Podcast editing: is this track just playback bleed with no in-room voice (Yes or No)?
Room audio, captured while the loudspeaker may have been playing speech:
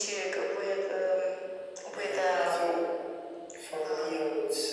Yes